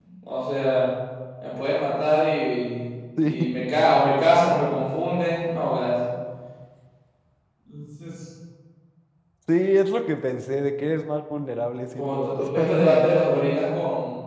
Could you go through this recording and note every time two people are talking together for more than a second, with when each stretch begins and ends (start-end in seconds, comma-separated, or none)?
11.9-13.2